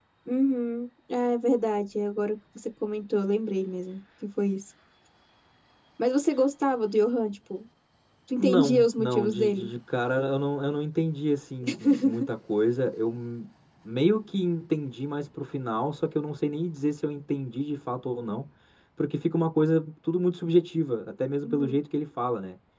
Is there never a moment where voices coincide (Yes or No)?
No